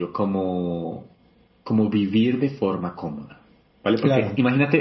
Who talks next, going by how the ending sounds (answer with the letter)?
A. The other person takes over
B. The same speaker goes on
B